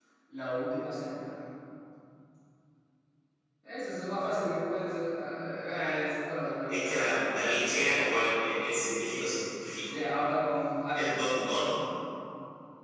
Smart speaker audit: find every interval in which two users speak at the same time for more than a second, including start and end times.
6.7-8.2

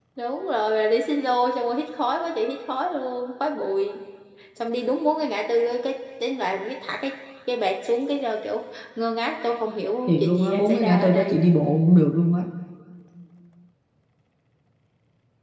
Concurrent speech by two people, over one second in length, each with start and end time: 10.1-11.3

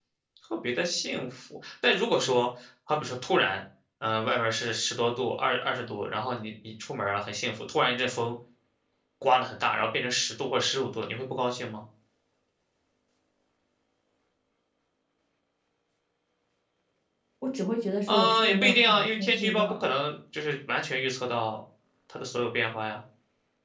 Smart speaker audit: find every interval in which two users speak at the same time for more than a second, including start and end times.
18.1-19.9

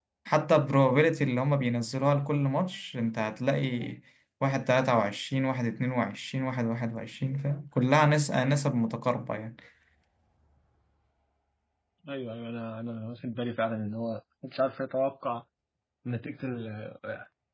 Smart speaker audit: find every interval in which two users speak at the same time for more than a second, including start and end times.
none

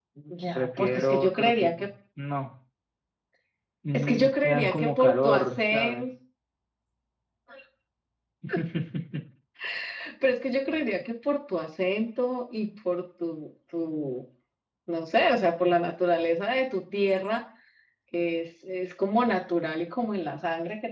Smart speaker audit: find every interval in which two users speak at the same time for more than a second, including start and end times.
0.6-1.9, 3.9-6.1

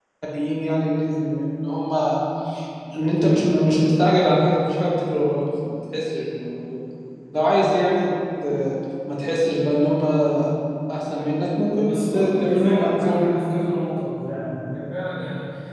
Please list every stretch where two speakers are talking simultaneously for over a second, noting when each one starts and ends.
11.8-13.3

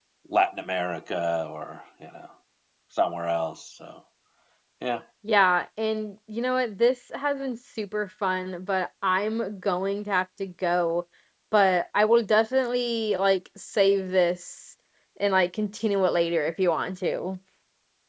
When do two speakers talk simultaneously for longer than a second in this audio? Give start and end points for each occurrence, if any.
none

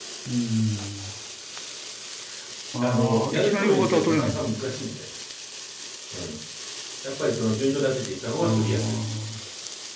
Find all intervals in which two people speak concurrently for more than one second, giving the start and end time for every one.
2.8-4.5

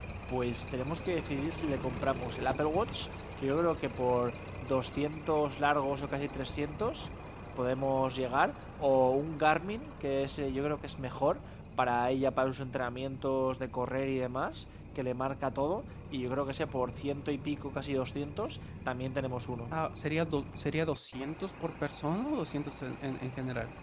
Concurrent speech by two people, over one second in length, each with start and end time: none

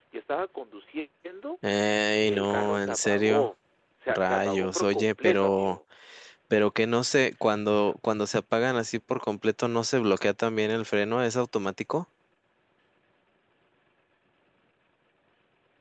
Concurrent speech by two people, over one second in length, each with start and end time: 2.2-3.5, 4.1-5.8

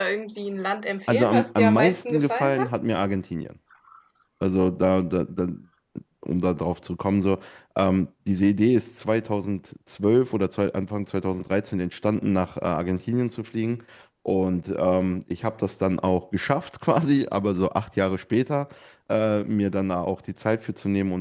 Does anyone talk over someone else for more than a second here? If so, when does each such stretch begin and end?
1.1-2.7

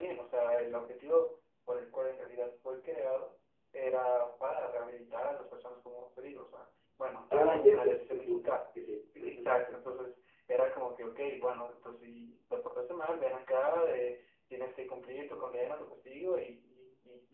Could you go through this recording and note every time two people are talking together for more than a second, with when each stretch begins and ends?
7.3-8.5

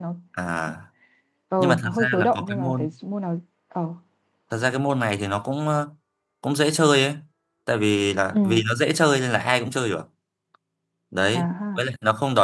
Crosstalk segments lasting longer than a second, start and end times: 1.6-2.9

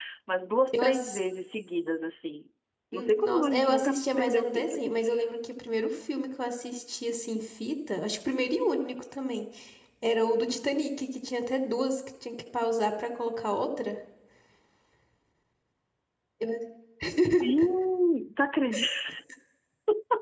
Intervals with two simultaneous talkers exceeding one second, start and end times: 2.9-4.8

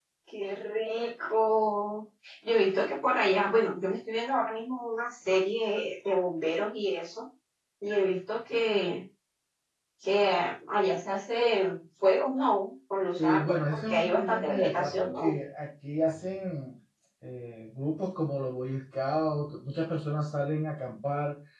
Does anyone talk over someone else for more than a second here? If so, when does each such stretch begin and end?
13.2-15.3

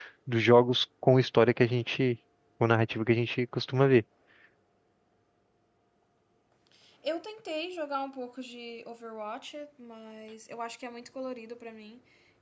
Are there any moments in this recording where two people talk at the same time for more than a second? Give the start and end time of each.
none

